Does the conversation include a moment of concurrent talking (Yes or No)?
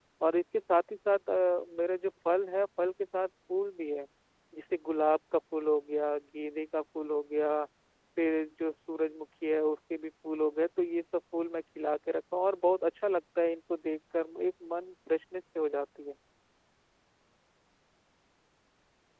No